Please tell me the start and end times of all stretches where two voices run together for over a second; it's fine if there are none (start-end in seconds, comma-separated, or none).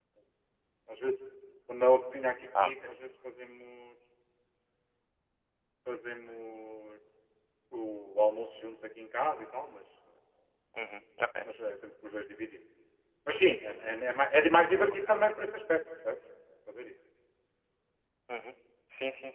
none